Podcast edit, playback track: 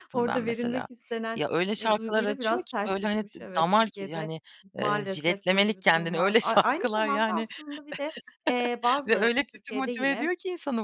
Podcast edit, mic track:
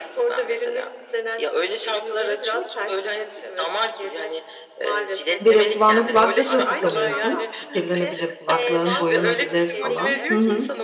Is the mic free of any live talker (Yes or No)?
No